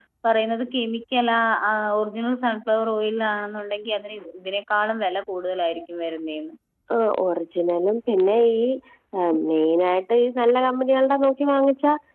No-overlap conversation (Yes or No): Yes